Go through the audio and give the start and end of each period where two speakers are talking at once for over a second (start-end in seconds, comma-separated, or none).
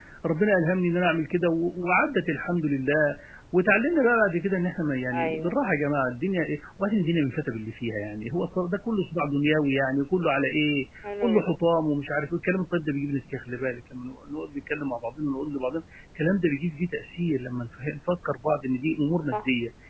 none